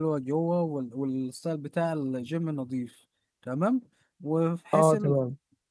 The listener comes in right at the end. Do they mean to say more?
No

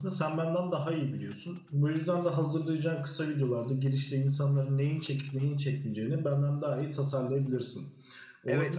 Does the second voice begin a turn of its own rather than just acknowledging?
Yes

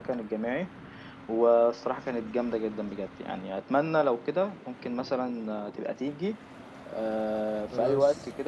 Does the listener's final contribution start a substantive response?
No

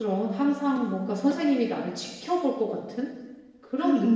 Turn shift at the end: Yes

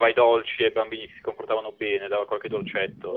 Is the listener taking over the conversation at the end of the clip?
Yes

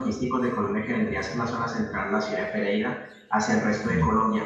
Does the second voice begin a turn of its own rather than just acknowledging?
No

